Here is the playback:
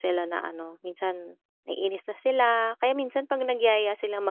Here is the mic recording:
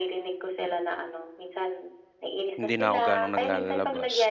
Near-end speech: present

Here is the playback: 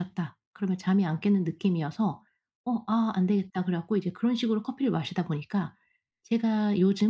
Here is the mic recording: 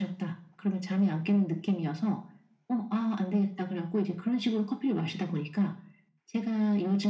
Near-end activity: none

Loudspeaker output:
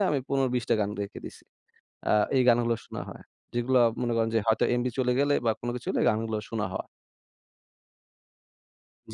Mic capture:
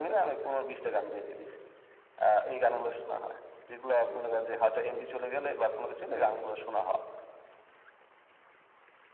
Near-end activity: none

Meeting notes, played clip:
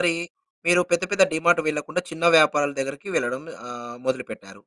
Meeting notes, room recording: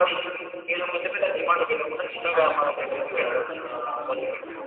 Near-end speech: present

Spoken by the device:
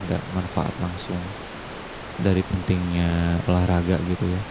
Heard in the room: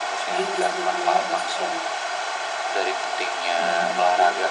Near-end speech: present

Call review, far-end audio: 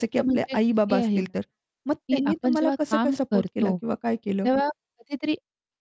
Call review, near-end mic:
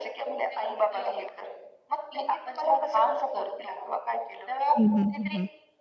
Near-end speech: present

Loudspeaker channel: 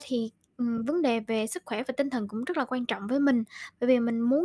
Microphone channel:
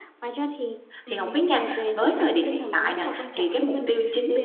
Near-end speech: present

